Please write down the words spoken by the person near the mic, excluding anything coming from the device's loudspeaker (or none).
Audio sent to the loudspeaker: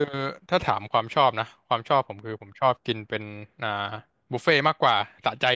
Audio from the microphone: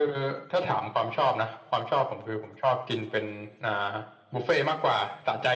none